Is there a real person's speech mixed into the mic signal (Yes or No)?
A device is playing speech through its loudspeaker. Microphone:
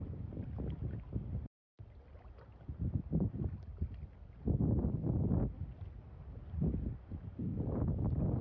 No